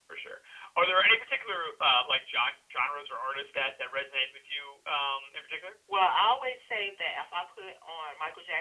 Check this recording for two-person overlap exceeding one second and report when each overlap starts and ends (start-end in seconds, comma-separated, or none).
none